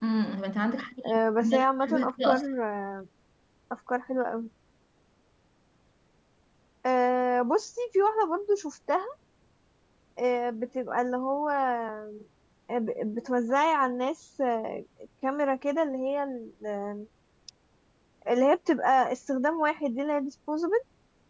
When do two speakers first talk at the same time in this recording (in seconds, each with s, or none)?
1.1 s